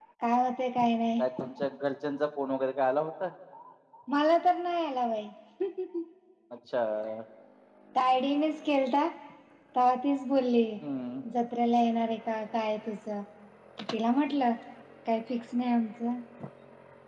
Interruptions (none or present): none